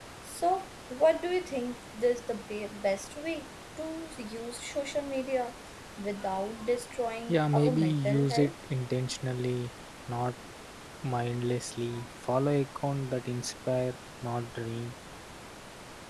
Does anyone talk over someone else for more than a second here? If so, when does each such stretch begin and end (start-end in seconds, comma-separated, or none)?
7.3-8.5